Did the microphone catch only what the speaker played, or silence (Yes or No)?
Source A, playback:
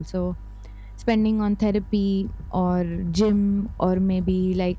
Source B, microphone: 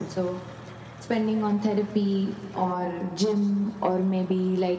Yes